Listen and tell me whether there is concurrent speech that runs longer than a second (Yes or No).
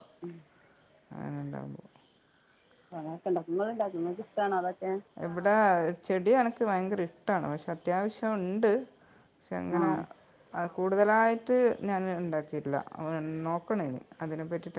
No